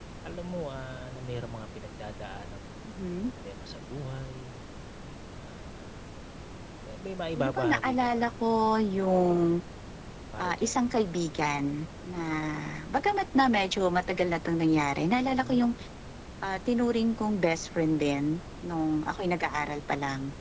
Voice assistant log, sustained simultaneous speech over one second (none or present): present